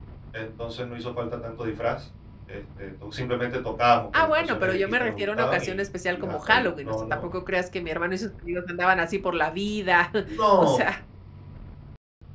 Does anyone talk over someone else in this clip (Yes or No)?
Yes